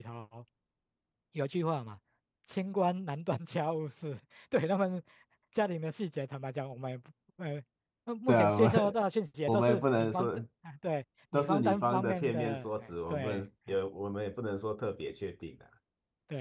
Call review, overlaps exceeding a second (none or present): present